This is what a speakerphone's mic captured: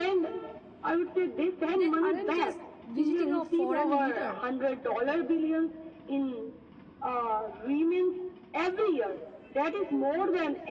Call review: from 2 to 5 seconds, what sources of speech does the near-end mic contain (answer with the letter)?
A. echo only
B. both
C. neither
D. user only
B